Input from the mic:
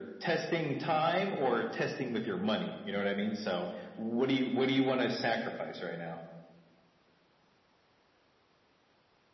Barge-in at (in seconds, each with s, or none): none